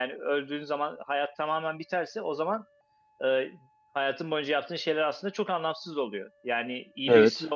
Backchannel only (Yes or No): Yes